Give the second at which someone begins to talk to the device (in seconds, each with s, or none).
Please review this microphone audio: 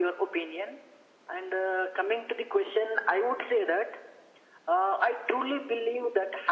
none